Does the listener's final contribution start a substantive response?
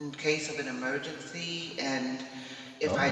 No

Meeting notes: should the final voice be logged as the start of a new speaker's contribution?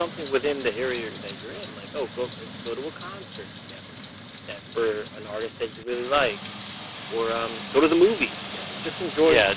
Yes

